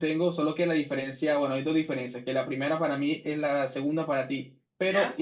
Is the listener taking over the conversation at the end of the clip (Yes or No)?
No